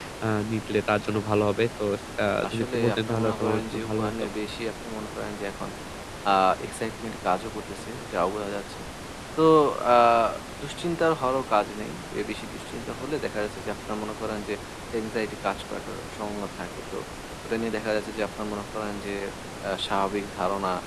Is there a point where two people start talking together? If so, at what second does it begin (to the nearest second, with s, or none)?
2 s